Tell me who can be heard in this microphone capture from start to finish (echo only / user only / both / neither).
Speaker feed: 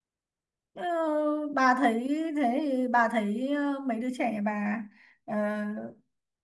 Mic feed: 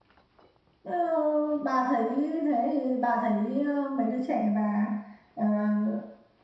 echo only